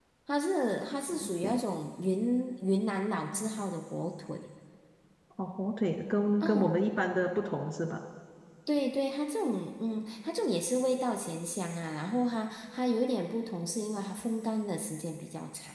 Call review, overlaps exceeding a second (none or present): none